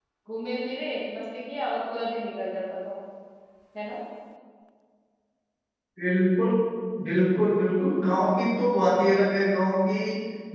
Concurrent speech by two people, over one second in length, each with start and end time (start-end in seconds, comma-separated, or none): none